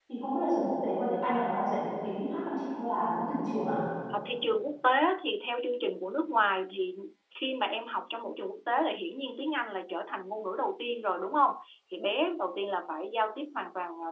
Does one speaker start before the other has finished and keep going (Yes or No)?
No